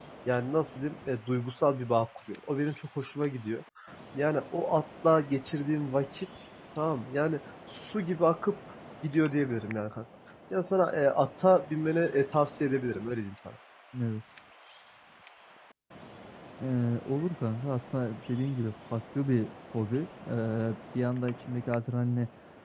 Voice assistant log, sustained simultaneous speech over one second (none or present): none